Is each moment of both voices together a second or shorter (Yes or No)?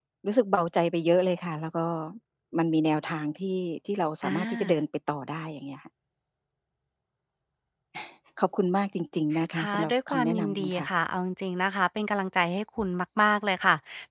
No